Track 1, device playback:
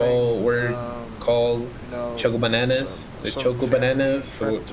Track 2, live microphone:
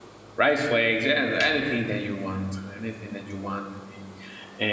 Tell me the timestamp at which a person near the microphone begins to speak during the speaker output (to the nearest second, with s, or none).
0 s